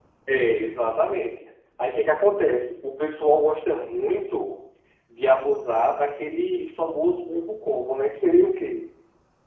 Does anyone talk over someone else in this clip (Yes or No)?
No